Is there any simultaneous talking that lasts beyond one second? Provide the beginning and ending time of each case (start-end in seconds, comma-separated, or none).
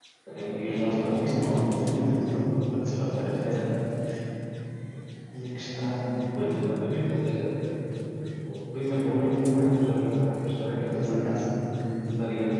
0.7-2.1